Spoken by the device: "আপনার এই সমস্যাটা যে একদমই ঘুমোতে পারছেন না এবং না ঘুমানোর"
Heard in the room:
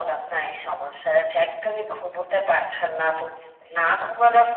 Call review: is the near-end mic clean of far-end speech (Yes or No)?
No